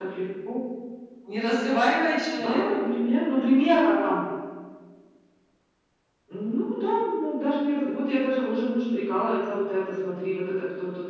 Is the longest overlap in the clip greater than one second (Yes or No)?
No